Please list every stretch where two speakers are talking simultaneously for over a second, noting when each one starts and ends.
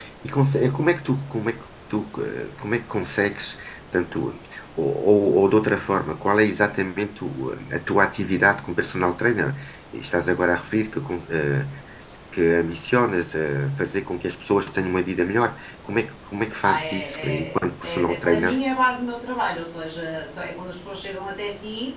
16.6-18.5

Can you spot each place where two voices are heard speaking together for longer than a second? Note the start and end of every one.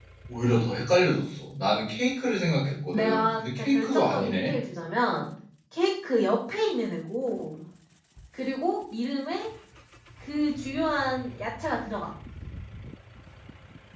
2.9-4.5

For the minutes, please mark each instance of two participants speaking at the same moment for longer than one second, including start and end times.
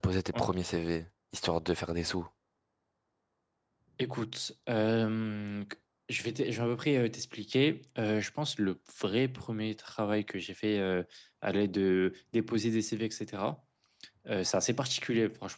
none

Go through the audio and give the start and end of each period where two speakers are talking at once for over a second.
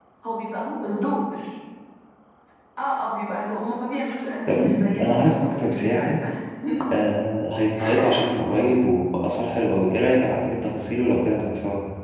4.5-6.2

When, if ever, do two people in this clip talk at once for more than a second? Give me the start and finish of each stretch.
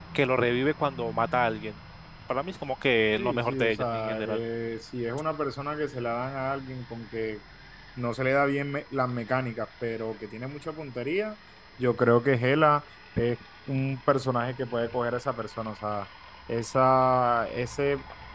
3.2-4.4

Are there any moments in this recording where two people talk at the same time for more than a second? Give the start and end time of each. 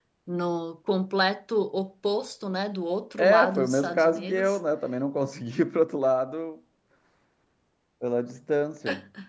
3.2-4.6

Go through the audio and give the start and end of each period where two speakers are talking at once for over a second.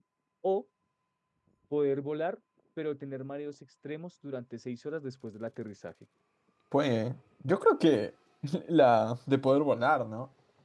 none

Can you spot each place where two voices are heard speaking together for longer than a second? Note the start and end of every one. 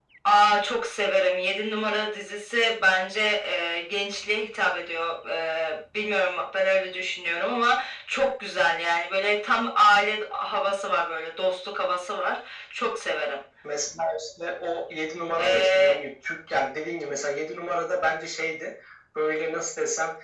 none

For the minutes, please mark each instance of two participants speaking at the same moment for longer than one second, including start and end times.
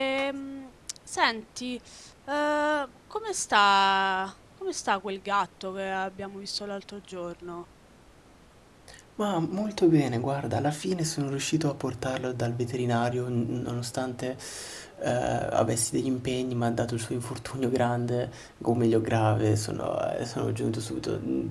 none

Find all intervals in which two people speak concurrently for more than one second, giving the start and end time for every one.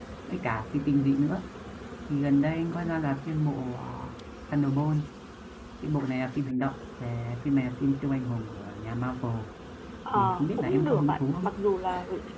10.2-11.5

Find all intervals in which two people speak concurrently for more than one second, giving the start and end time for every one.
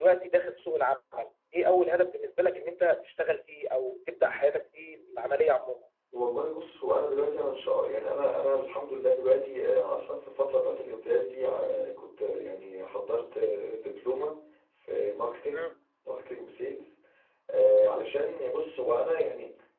none

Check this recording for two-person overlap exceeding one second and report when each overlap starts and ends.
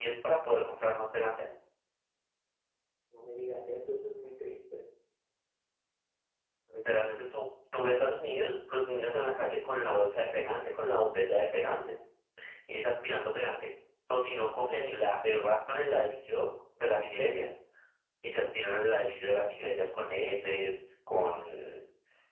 none

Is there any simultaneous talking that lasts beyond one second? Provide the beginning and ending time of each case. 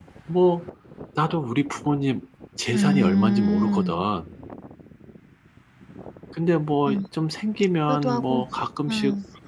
2.7-3.9

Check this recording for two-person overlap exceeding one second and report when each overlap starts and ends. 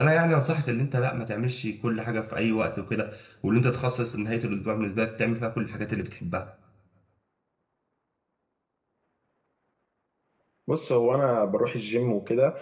none

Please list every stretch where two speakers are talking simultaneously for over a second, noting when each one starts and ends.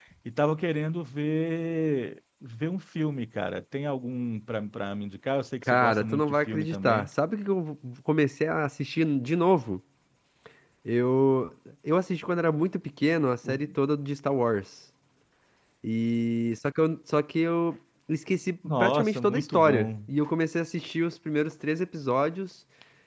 5.7-7.1, 18.8-20.1

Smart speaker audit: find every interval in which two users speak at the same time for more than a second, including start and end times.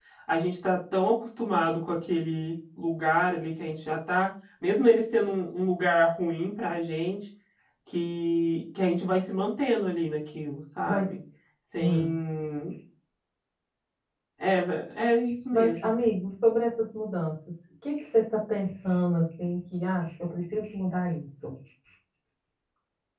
none

